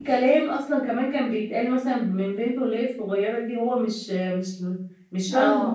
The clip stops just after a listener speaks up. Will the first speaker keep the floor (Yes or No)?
No